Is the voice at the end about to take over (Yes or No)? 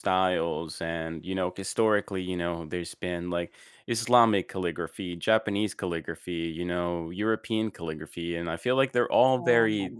No